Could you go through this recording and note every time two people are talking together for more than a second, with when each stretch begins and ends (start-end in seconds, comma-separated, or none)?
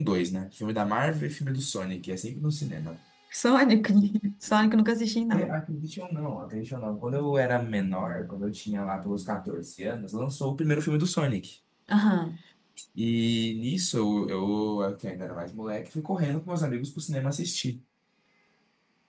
none